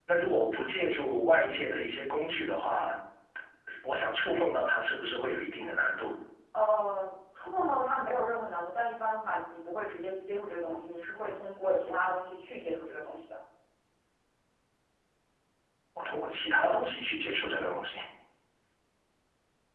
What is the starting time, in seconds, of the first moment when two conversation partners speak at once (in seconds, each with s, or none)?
none